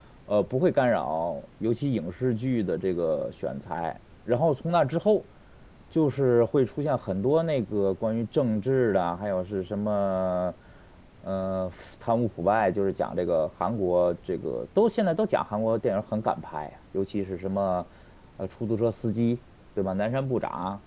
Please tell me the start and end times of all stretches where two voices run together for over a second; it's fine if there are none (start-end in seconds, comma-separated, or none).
none